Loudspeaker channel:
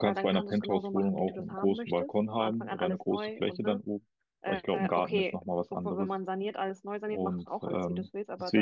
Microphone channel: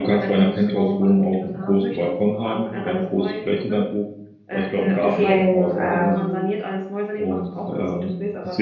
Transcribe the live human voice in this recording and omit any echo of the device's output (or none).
Deswegen ähm,